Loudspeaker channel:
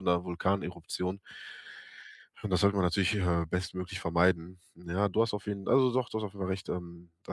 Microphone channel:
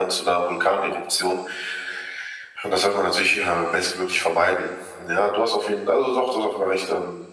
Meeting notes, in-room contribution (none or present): none